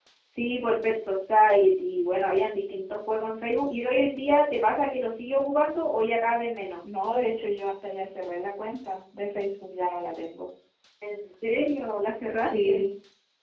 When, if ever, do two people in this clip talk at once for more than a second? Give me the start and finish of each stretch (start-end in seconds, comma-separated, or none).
none